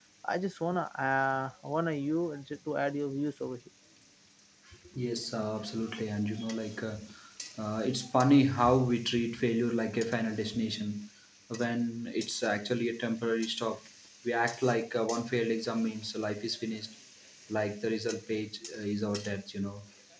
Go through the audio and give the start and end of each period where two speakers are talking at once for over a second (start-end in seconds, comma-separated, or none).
none